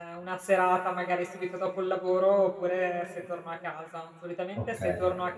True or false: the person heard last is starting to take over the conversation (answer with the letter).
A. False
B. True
A